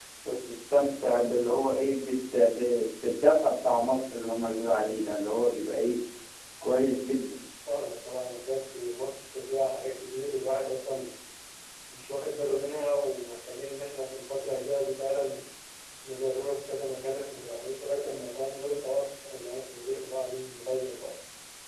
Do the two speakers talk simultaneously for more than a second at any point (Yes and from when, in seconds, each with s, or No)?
No